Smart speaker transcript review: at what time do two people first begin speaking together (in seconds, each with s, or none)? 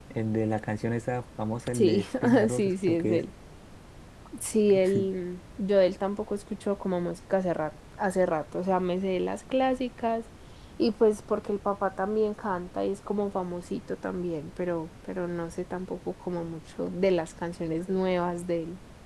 1.8 s